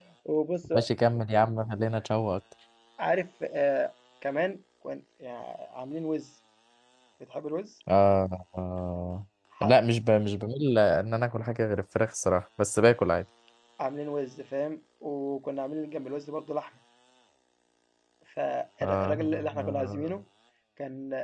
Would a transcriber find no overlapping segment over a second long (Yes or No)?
No